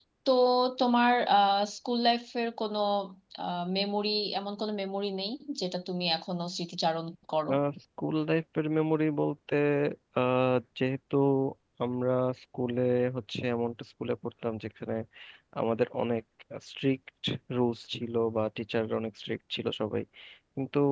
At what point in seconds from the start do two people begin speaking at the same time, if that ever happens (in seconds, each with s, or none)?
none